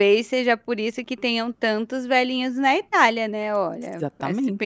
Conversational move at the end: taking over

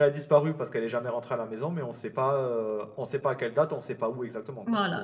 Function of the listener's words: taking over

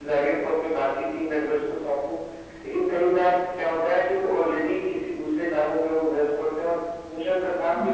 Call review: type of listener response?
listening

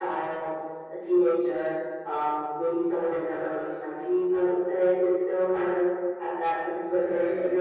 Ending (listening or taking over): listening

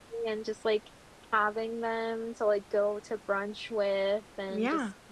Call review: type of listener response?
listening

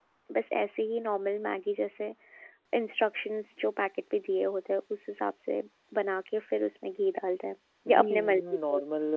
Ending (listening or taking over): taking over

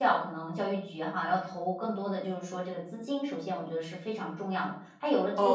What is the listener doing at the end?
taking over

